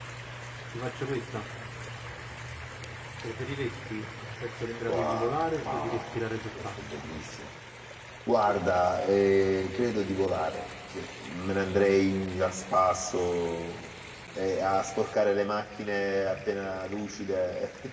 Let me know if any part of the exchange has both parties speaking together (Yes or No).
Yes